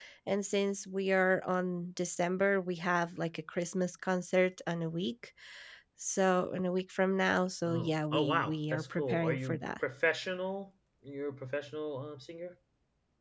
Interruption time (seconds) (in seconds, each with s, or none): 7.7 s